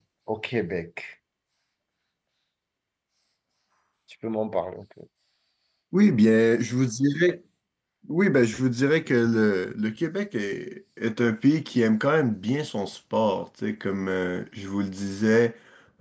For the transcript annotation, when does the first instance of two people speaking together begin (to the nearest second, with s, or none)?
none